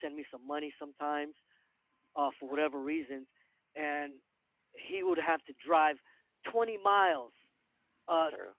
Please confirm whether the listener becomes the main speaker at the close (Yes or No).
No